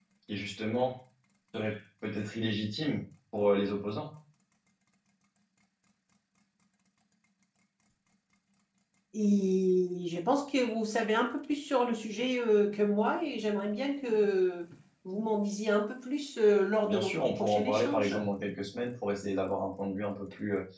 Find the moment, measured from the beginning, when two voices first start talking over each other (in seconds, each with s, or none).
16.8 s